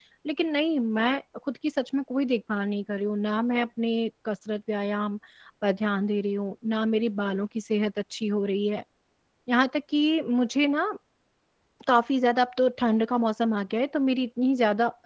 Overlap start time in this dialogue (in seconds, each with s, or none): none